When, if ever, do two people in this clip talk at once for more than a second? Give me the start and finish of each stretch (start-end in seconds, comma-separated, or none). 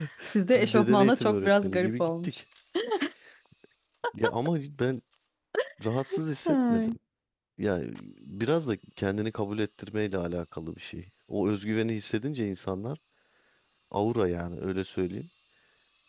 0.5-2.4